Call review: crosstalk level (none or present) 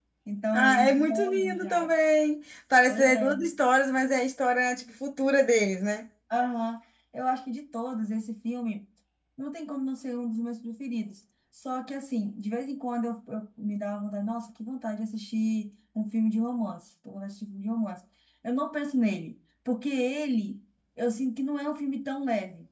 present